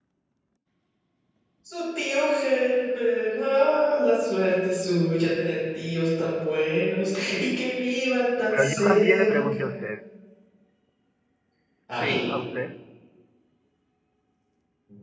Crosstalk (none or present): present